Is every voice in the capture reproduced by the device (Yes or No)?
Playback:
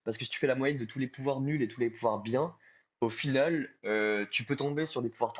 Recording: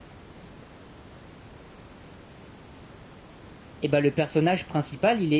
No